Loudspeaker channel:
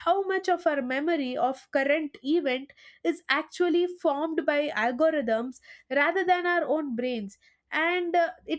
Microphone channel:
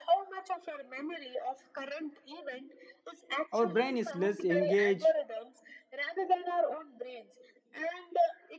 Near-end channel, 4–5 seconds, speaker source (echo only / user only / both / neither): both